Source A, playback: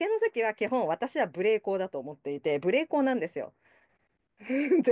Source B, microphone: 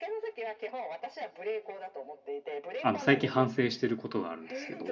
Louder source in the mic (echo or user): user